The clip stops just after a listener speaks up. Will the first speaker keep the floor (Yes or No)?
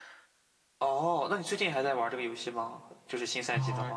No